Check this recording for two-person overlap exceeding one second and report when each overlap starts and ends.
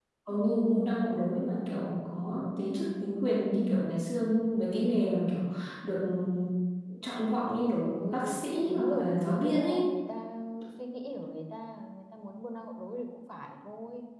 7.8-9.9

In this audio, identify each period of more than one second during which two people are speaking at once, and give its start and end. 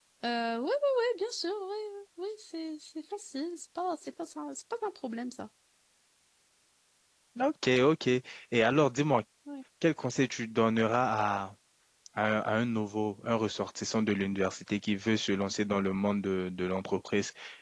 none

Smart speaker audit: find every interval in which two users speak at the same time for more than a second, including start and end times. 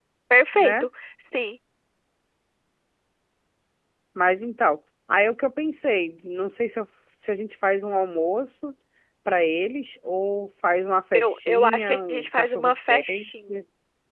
11.1-13.6

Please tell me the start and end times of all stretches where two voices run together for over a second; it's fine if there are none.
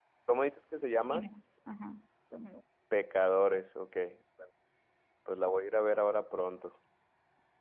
none

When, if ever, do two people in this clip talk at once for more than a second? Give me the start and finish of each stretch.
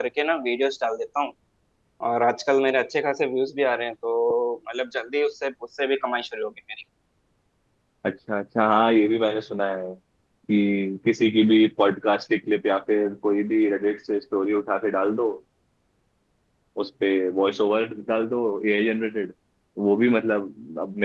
none

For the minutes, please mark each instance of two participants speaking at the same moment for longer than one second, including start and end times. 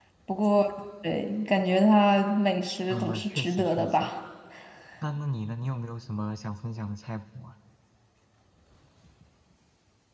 2.9-4.1

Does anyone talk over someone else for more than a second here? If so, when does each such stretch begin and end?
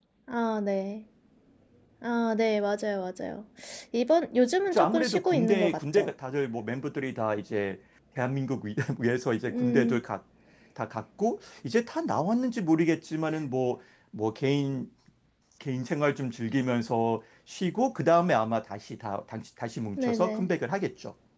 4.7-6.1

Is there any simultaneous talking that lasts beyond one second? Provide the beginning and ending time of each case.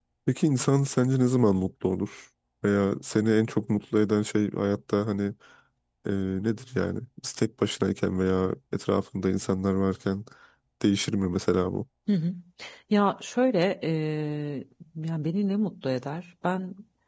none

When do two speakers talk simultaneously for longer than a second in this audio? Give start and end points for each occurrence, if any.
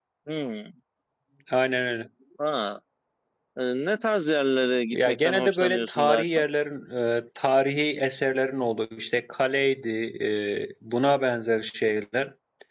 4.9-6.4

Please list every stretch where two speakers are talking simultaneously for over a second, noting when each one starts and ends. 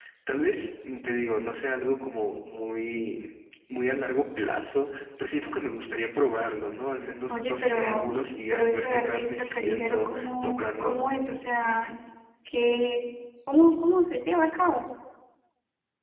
7.3-11.1

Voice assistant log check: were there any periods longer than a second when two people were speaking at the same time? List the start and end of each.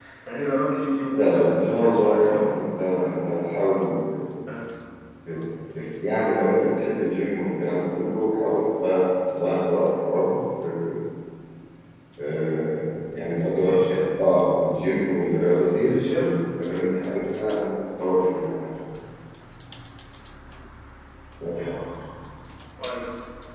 1.1-2.6

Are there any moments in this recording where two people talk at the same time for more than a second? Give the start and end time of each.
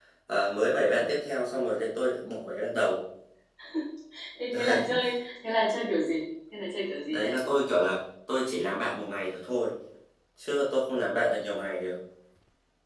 none

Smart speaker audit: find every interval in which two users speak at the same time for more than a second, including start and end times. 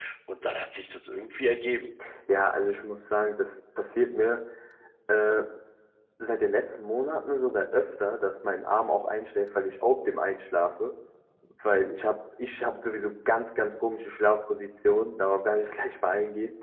none

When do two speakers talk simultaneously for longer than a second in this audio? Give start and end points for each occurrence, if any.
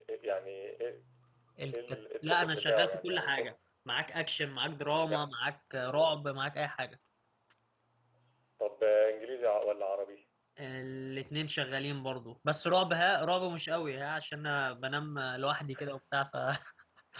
1.7-3.5

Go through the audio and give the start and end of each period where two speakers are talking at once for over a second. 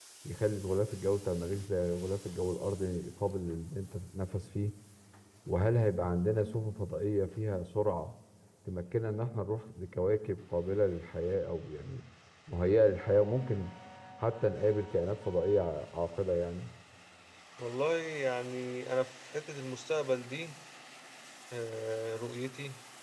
none

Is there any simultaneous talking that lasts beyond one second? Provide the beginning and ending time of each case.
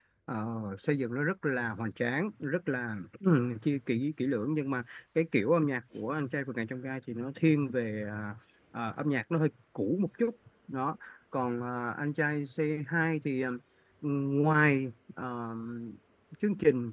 none

